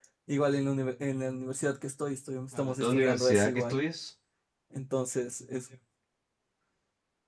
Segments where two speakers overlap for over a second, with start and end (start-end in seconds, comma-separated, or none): 2.5-3.8